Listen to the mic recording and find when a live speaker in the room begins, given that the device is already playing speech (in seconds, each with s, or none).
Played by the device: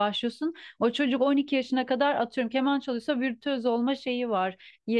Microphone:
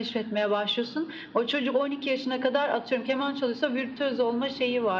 none